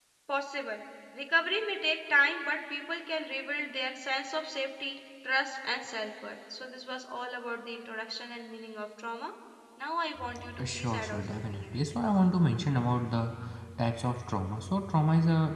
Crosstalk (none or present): present